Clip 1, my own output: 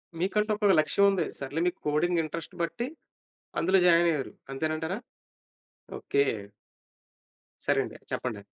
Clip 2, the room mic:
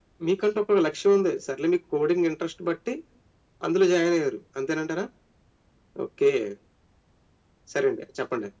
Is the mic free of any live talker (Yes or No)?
Yes